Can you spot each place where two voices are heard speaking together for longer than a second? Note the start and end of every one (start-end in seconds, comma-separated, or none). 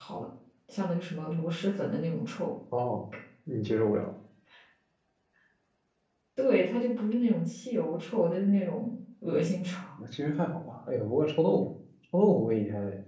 none